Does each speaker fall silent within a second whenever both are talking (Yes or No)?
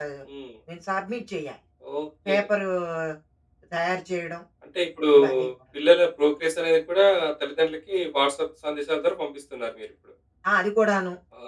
Yes